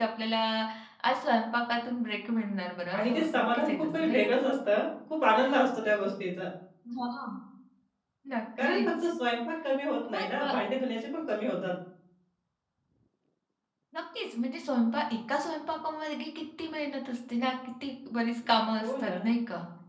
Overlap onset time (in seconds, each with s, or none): 3.0 s